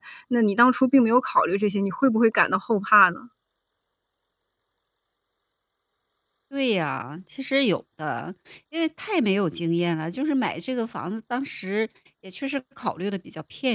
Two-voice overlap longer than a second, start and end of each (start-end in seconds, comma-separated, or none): none